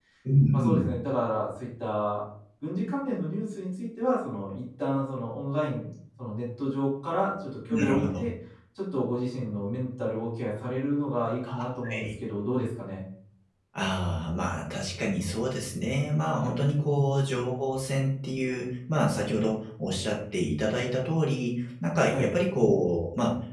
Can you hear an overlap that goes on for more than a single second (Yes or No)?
No